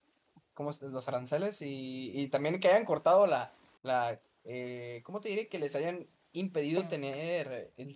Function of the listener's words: listening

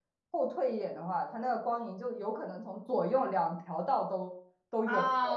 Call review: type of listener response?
taking over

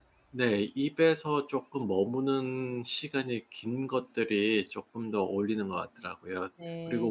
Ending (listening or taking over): listening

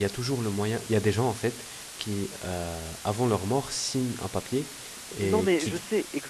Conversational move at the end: taking over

